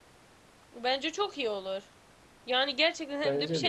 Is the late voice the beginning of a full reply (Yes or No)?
No